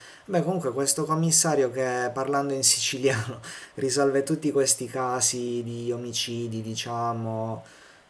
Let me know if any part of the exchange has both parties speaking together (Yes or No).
No